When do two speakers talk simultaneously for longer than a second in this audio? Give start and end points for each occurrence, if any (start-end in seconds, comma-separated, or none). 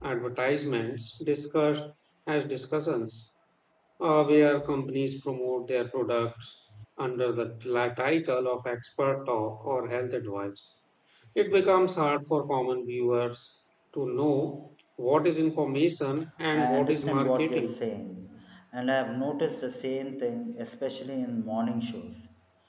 16.5-17.8